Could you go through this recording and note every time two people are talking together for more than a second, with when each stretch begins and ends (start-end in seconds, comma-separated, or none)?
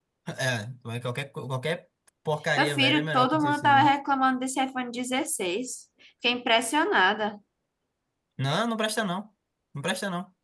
2.6-3.9